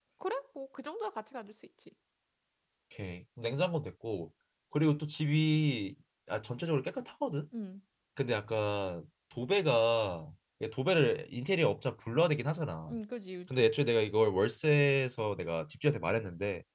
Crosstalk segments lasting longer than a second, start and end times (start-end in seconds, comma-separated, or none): none